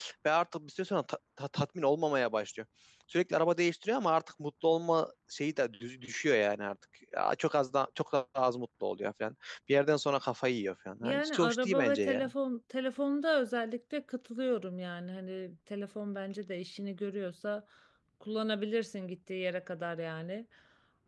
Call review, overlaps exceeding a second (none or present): present